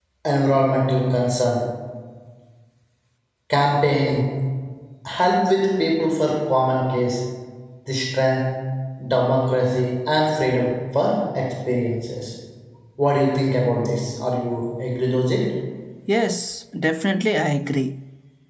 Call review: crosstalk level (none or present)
none